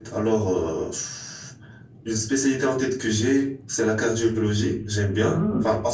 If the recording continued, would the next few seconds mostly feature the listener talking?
Yes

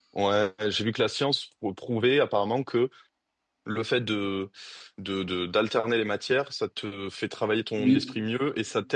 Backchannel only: Yes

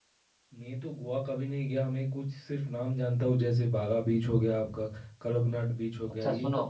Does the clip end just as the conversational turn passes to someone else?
Yes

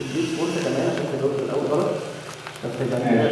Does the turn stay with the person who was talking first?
Yes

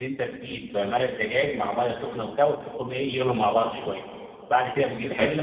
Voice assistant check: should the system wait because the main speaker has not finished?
Yes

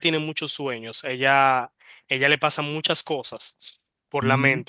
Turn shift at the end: No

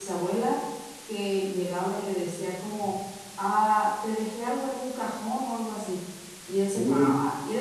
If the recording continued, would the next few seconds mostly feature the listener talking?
No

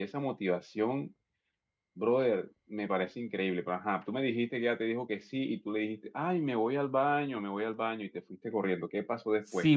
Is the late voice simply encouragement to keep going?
No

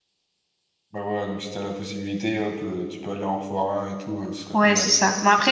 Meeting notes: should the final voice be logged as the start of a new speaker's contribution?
Yes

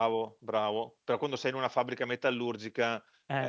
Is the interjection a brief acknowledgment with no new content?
Yes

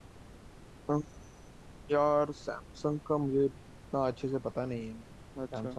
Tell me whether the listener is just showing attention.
No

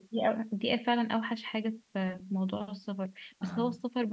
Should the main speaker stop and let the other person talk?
No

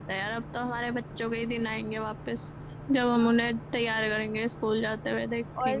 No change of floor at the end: No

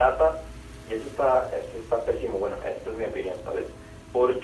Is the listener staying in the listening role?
Yes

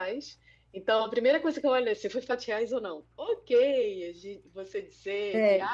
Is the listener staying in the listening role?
Yes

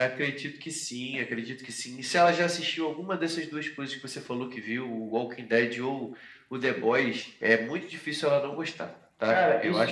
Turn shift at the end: Yes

